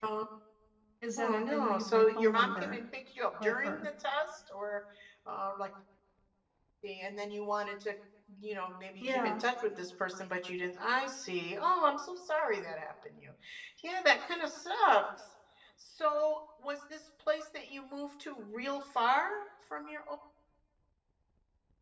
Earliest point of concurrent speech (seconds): 1.2 s

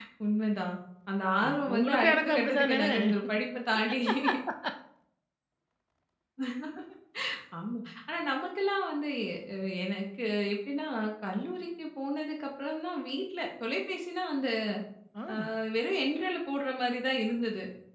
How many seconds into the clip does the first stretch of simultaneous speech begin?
1.4 s

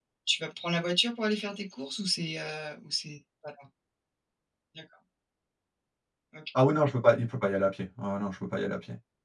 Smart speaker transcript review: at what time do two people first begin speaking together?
none

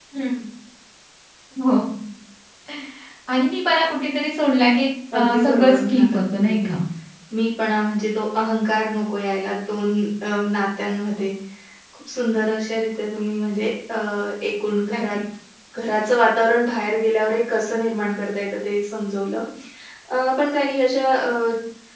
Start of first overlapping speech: 5.1 s

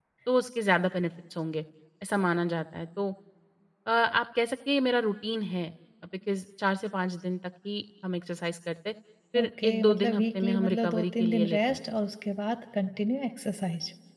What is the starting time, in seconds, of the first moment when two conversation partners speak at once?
9.4 s

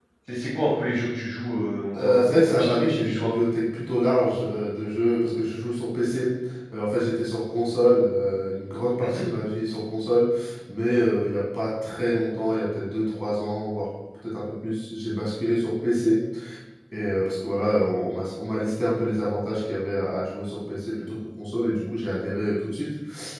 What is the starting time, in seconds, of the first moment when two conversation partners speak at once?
1.9 s

